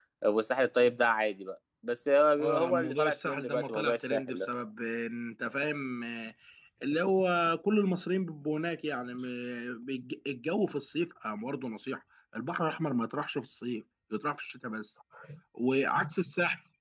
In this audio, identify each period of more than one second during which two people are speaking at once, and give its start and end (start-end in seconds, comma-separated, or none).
2.4-4.5